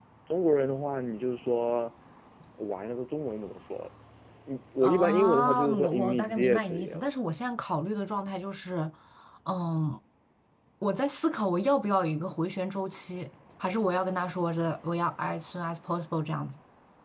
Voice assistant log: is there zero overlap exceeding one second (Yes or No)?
No